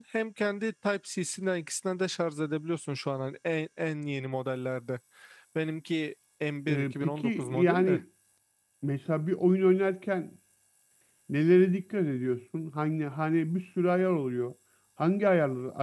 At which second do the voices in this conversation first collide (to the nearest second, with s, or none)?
7 s